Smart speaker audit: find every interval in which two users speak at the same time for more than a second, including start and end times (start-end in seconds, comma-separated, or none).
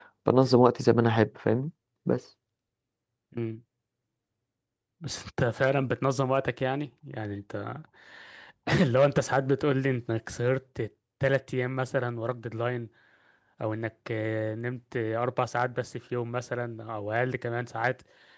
none